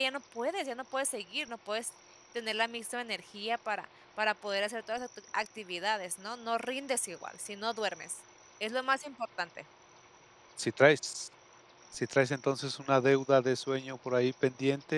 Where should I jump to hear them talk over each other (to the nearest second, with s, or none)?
none